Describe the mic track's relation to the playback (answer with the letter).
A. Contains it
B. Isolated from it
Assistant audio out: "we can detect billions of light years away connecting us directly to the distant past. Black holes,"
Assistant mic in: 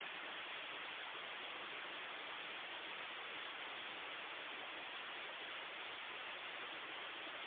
B